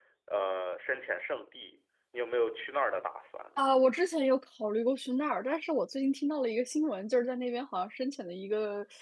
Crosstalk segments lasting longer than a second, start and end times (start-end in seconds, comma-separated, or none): none